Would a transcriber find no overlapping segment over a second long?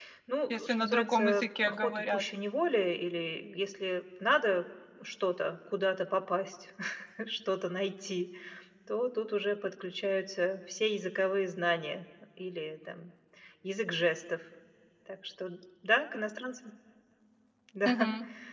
No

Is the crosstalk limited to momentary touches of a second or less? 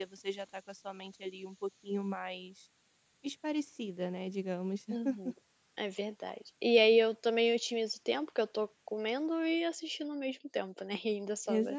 Yes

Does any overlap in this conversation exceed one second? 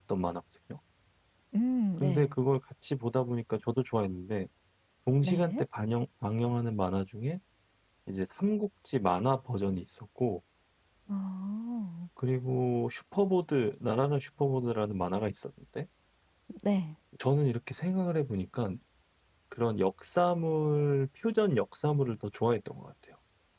No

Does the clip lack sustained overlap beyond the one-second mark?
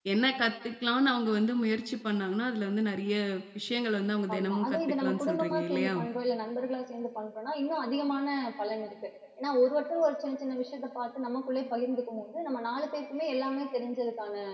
No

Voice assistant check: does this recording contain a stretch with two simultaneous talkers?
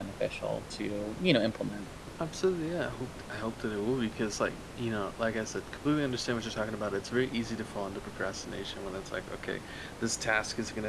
No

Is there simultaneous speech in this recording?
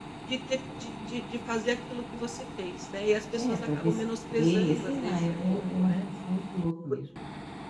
Yes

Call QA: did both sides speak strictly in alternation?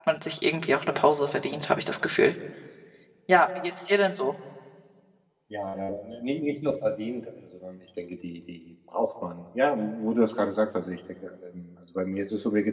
Yes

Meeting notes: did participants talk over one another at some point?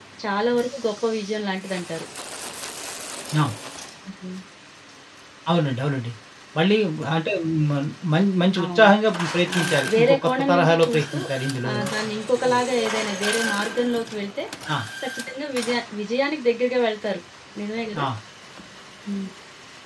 Yes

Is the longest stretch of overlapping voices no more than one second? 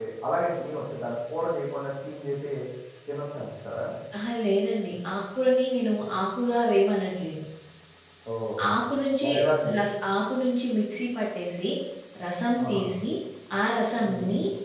Yes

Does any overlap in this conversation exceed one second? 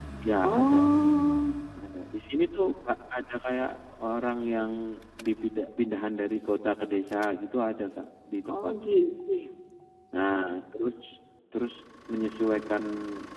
No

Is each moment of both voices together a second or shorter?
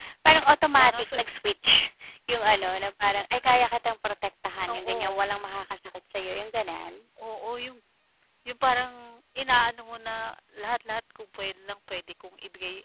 Yes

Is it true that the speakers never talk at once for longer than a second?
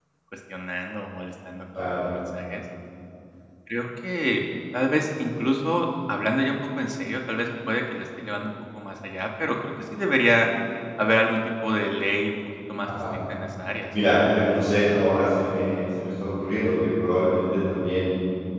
Yes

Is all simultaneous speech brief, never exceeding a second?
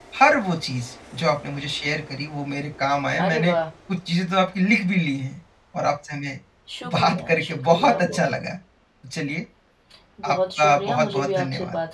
No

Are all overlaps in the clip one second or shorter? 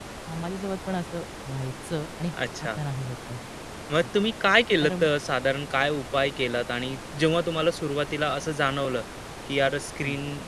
Yes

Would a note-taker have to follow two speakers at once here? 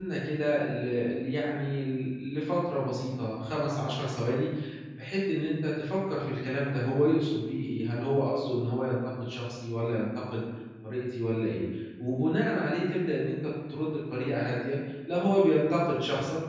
No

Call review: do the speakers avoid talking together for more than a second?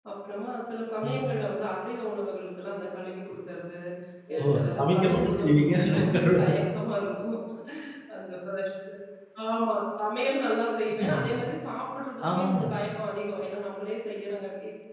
No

